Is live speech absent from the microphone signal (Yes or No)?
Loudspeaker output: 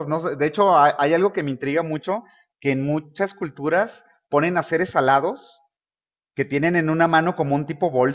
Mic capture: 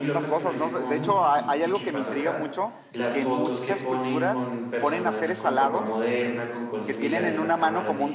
No